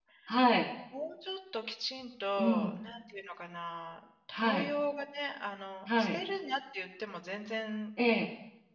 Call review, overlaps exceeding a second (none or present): none